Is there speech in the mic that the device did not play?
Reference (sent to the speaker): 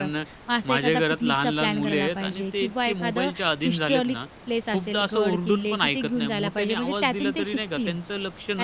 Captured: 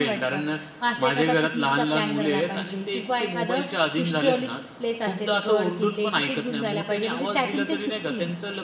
No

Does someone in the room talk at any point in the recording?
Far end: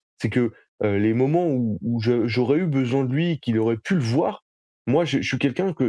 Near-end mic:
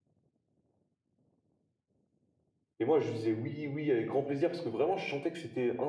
Yes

